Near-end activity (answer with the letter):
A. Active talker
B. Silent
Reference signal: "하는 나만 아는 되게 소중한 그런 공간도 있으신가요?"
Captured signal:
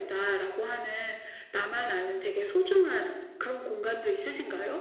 B